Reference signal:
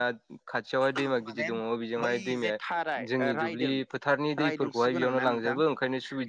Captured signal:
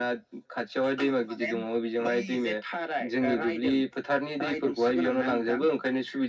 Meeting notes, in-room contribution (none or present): none